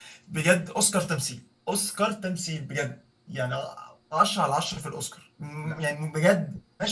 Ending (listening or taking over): listening